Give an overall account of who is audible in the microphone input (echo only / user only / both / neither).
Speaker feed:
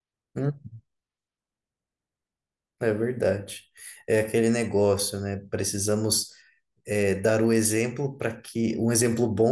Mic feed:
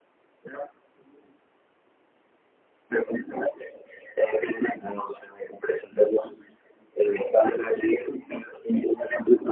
echo only